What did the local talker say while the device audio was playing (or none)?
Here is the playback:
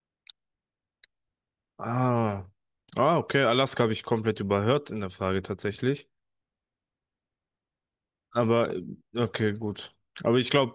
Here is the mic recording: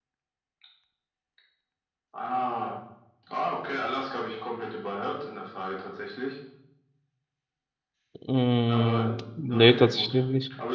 Mm, nee, tatsächlich nicht.